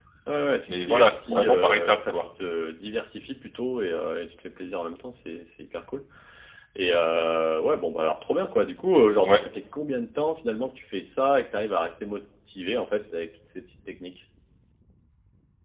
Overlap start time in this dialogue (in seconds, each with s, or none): 0.7 s